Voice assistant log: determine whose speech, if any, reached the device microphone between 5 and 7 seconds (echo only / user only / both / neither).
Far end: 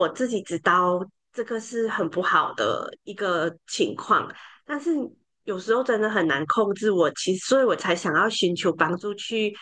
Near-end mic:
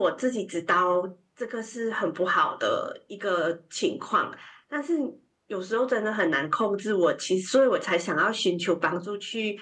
echo only